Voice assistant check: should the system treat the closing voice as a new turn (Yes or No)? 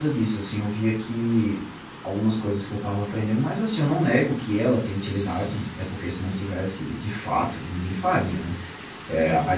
No